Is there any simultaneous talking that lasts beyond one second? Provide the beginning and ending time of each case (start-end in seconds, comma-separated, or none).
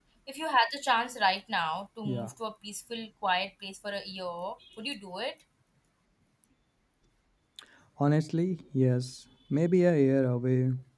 none